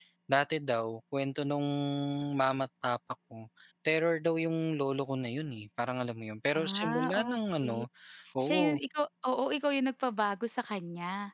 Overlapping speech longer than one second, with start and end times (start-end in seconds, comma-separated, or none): 6.5-7.8